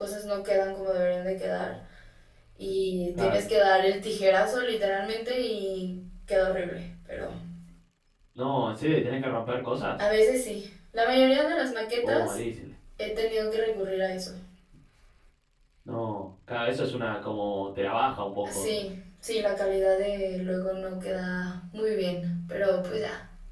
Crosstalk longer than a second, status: none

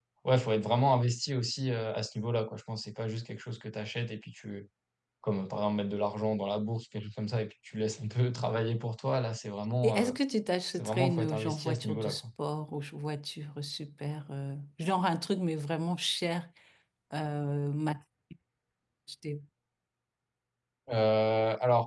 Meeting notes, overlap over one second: present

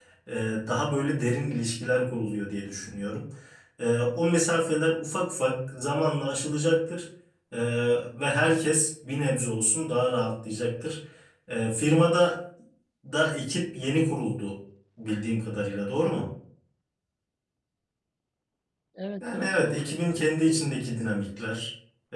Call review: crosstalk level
present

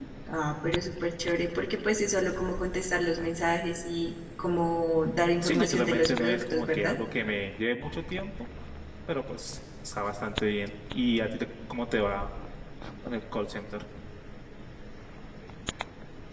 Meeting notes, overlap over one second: present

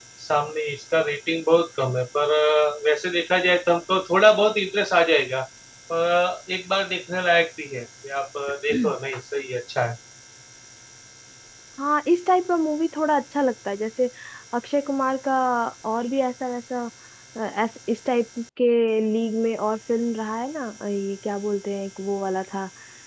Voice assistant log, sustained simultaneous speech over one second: none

